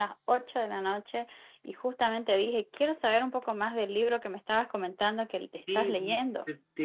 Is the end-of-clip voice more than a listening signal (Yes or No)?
Yes